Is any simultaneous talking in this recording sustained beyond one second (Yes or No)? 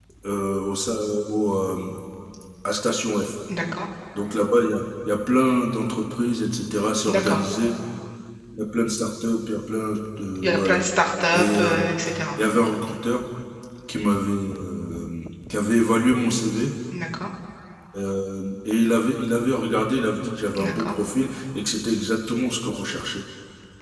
No